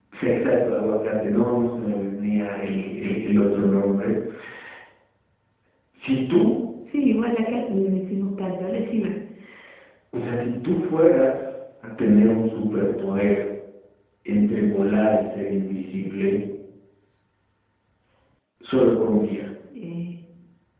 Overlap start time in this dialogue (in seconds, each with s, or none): none